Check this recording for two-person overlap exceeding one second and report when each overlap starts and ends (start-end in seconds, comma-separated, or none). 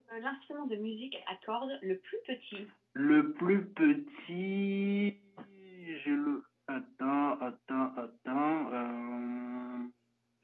none